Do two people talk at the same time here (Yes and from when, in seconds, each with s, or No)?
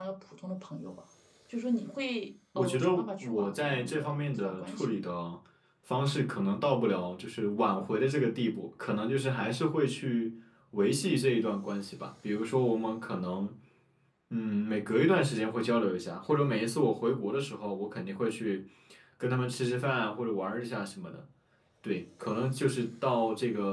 Yes, from 2.5 s